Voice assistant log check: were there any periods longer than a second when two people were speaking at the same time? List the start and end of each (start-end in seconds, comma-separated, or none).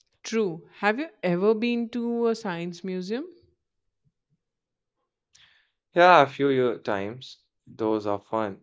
none